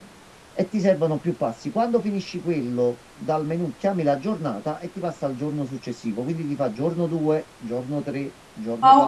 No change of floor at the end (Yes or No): No